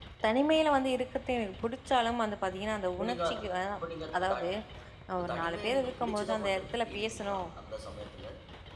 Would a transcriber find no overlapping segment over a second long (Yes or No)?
No